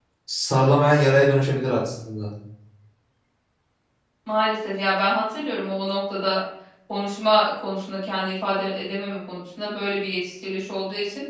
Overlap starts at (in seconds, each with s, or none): none